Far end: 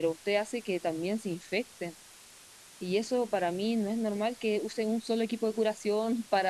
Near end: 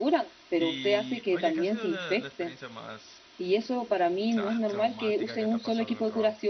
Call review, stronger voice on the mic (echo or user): echo